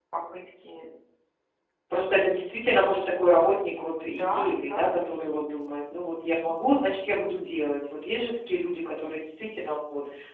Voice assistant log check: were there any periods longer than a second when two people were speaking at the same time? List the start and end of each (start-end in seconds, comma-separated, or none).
4.1-5.5